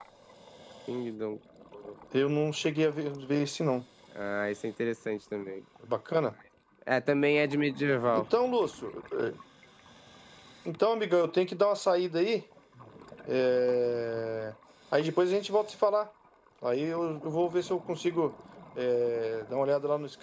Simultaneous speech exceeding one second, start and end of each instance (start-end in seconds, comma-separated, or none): none